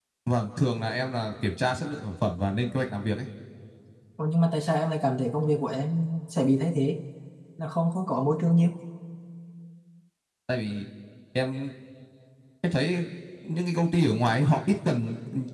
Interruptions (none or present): none